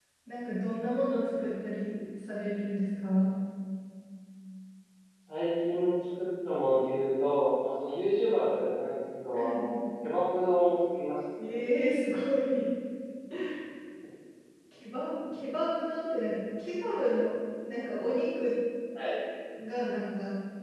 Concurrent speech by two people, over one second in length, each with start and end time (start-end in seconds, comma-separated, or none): none